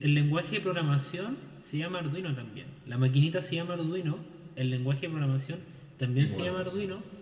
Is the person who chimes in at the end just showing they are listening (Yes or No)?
Yes